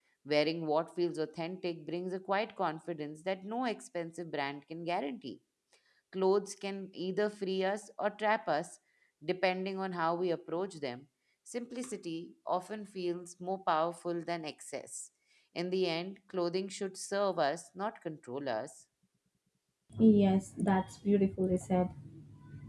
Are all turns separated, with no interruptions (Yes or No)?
Yes